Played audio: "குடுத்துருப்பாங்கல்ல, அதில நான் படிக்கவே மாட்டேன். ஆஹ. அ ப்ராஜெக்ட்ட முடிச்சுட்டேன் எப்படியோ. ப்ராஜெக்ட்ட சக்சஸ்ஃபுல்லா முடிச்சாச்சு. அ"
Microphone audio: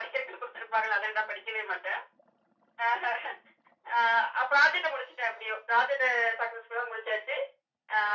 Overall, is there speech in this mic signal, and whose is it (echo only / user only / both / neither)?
echo only